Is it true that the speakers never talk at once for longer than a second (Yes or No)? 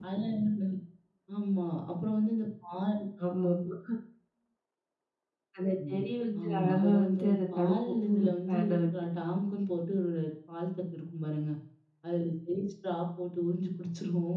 No